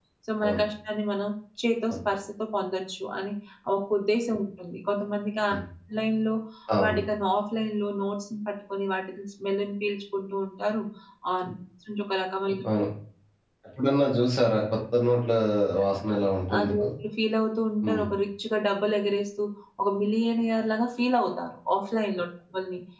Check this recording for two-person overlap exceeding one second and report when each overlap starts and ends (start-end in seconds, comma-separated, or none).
none